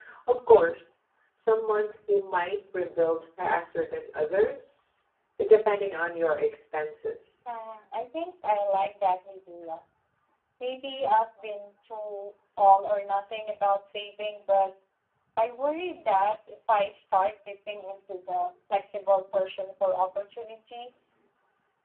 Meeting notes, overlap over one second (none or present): none